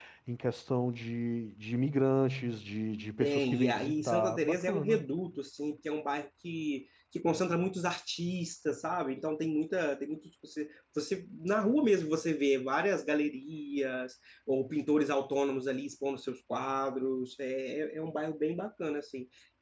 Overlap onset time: 3.2 s

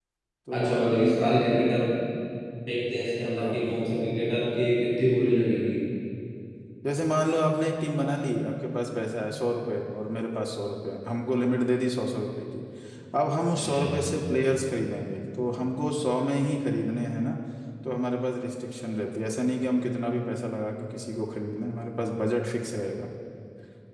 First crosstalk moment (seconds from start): 0.5 s

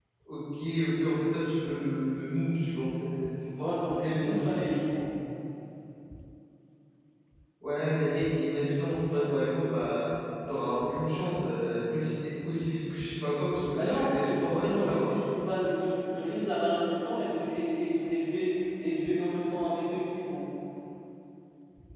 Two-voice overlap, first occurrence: 3.6 s

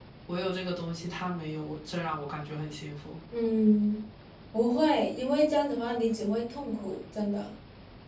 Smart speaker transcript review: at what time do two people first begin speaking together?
none

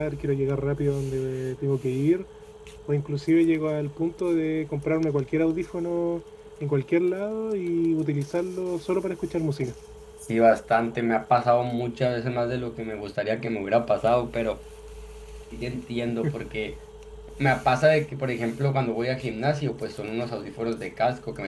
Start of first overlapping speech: none

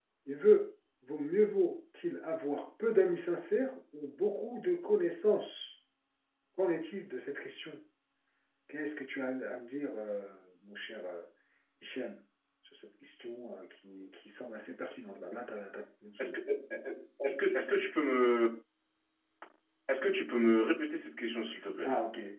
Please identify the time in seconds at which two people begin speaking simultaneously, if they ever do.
none

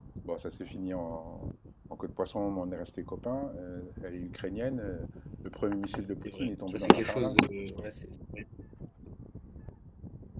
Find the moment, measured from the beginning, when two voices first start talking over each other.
6.2 s

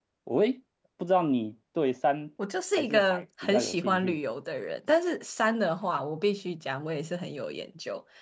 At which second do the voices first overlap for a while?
2.8 s

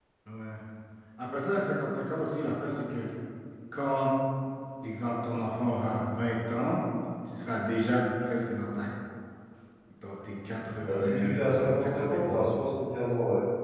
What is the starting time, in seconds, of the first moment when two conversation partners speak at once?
10.8 s

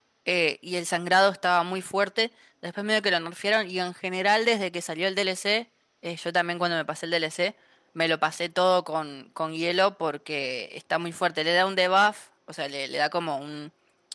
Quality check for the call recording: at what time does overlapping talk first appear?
none

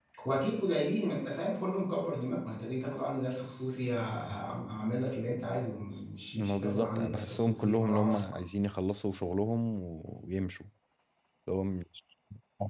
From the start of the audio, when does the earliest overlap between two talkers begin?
6.3 s

